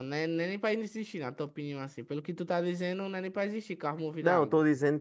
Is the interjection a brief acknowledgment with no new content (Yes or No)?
No